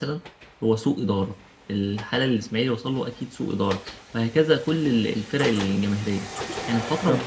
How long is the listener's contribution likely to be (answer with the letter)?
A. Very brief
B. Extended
A